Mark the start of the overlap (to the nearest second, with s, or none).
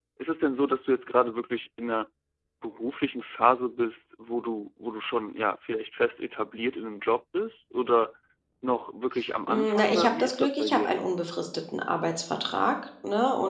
9 s